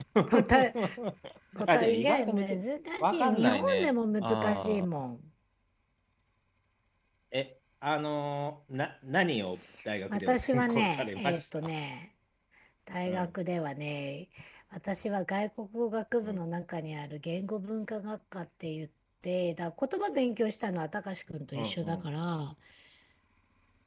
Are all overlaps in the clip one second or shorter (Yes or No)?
No